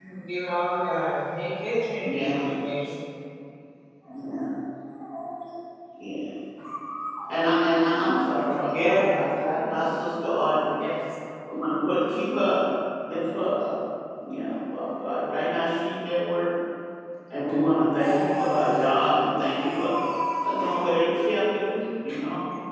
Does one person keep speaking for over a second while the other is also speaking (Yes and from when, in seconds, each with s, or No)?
No